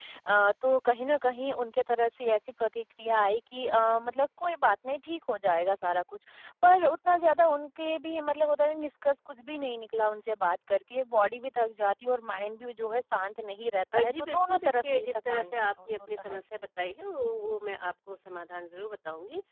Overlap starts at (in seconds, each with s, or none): 13.9 s